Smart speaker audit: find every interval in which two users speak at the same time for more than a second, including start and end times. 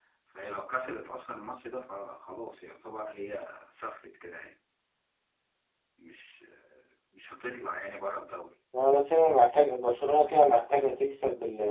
none

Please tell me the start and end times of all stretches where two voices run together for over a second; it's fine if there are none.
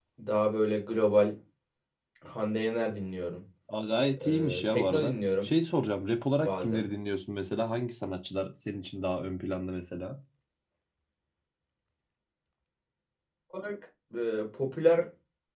4.2-5.5

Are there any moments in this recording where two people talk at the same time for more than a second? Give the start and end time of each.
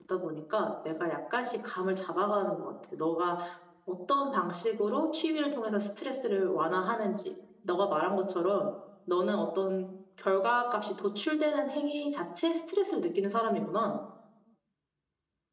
none

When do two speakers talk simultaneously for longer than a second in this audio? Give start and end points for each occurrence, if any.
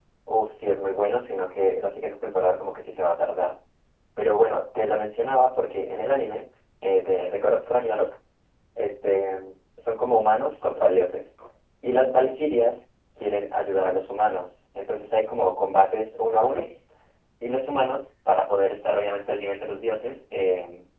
none

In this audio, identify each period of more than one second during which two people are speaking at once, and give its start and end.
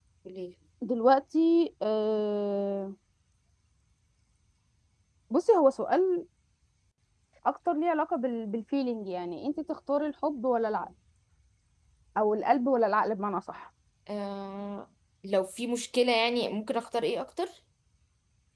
none

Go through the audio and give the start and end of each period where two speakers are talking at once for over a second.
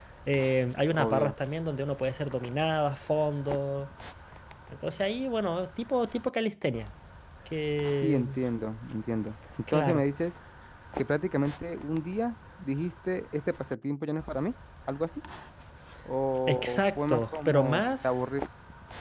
16.5-18.2

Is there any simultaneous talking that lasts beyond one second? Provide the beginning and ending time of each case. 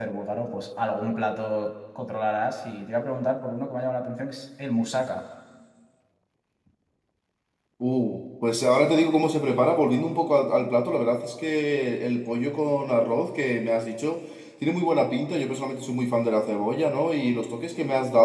none

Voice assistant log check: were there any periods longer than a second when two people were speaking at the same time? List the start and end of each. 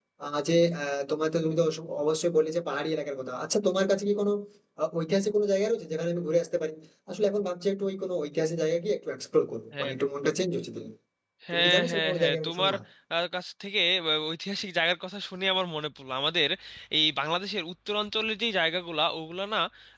11.5-12.7

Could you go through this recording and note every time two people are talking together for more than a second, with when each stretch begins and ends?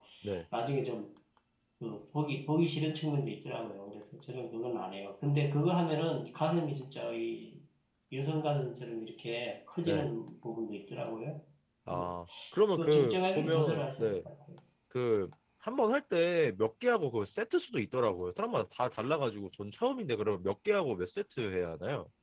12.8-14.2

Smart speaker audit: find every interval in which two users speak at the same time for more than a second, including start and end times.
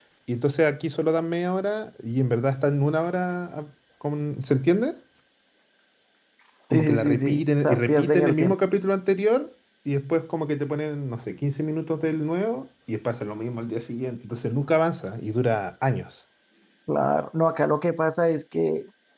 6.7-8.5

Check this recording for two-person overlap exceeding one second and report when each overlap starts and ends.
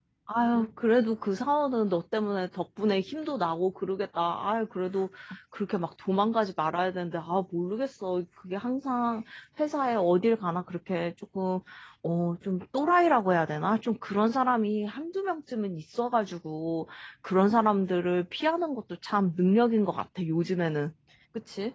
none

